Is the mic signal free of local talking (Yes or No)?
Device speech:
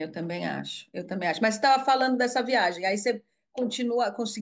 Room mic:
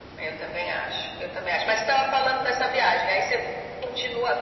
Yes